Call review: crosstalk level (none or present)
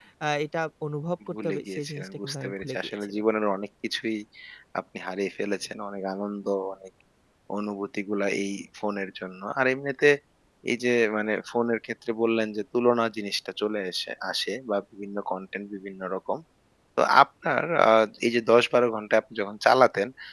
present